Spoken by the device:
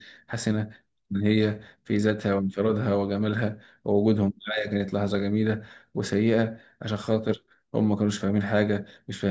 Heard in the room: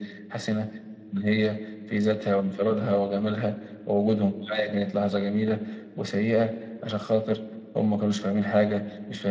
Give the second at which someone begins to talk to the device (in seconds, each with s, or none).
none